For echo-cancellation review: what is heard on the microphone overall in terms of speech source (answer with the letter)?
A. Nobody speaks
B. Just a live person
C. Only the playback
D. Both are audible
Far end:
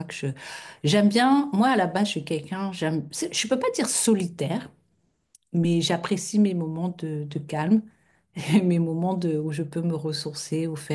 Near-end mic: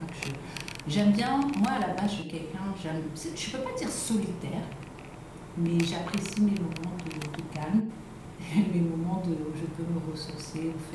C